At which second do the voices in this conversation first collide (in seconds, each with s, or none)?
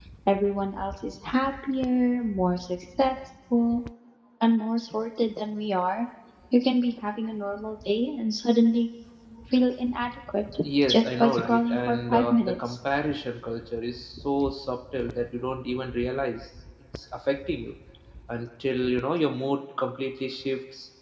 10.9 s